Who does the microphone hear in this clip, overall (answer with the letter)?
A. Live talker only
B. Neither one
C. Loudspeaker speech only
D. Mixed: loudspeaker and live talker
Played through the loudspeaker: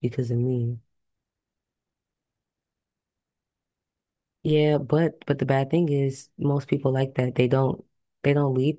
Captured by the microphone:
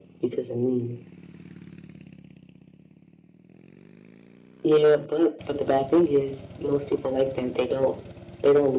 C